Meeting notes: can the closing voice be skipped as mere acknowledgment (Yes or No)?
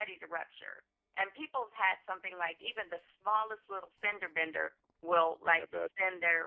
Yes